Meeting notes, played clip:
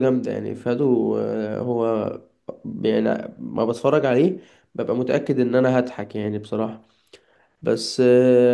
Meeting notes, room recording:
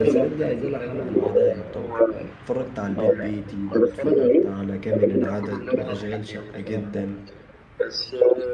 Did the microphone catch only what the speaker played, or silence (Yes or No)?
No